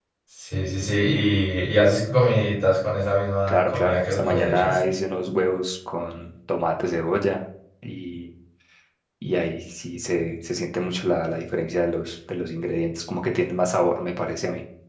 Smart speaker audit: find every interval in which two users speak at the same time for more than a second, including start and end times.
3.5-4.8

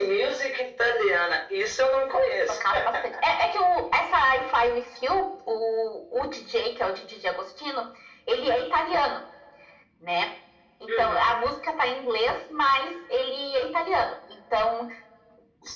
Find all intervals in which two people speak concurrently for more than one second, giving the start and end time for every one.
none

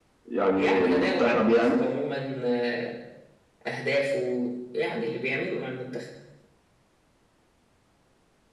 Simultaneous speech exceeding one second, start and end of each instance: 0.6-1.8

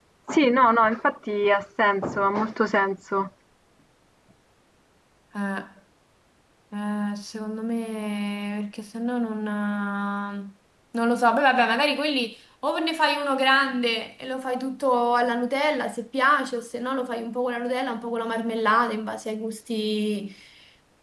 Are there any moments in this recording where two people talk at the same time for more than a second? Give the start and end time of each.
none

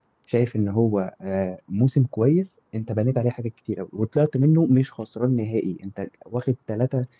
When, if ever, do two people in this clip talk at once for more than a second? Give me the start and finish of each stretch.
none

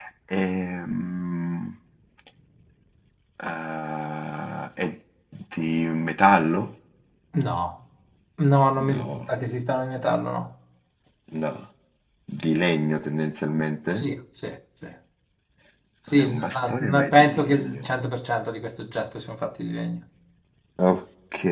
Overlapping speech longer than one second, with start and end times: 16.1-17.9

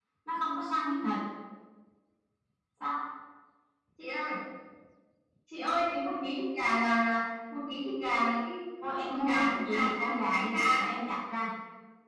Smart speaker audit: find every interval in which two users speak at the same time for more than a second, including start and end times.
9.1-10.6

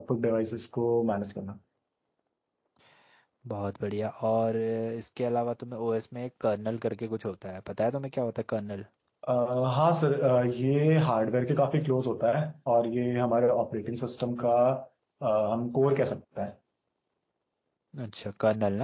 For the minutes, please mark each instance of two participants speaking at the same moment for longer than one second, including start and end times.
none

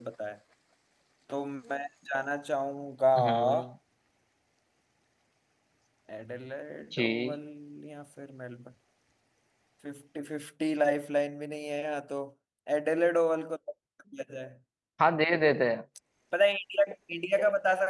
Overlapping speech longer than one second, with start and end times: none

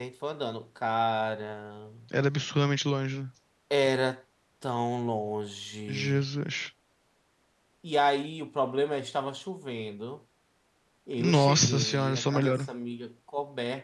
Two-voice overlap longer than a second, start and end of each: 11.2-12.7

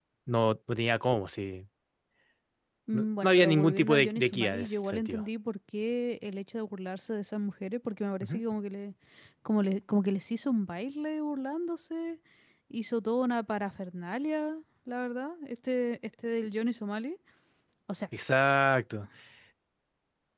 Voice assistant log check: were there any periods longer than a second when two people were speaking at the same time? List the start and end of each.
2.9-5.2

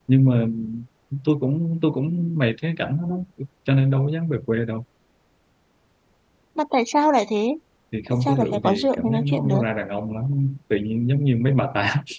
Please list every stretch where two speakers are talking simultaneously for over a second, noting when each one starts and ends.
8.1-9.6

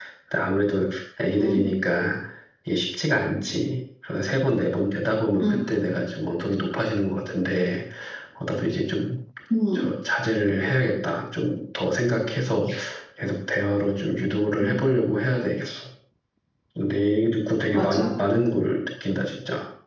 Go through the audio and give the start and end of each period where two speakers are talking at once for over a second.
none

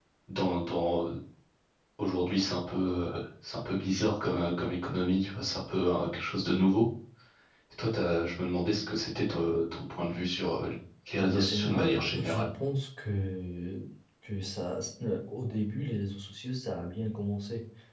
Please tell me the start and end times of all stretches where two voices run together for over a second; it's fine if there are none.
11.2-12.5

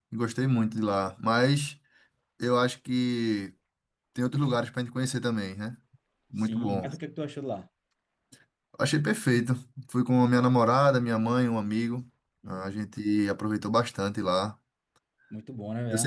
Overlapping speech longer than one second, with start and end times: none

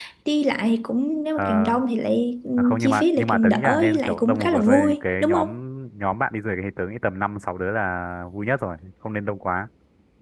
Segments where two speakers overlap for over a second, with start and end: 2.6-5.5

